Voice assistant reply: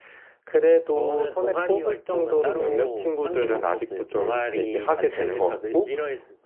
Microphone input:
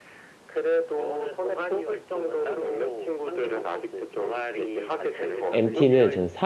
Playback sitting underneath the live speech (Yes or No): Yes